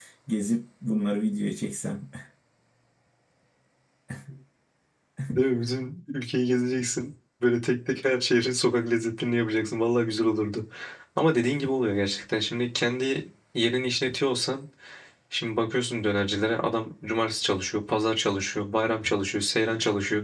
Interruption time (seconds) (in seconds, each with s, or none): none